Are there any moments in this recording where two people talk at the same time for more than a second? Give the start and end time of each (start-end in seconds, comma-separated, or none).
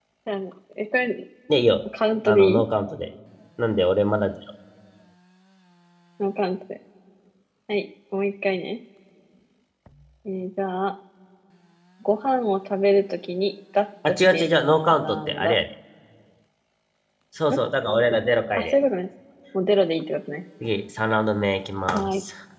14.0-15.6